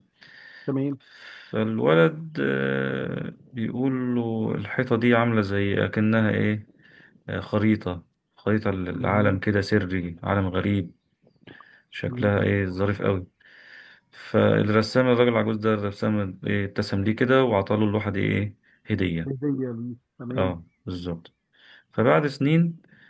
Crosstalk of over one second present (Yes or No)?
No